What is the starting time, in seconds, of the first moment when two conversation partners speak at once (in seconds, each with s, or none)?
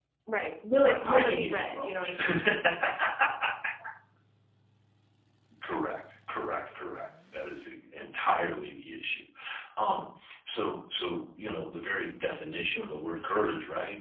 0.8 s